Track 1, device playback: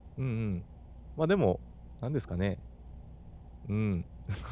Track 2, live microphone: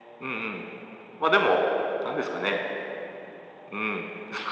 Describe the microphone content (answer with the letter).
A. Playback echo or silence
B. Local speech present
A